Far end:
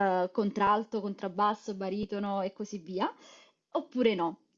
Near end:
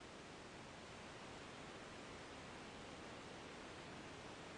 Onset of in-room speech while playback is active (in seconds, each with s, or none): none